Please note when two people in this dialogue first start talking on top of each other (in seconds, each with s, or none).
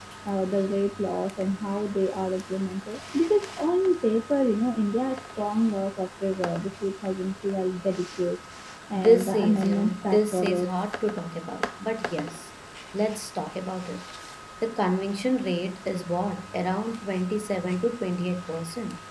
8.9 s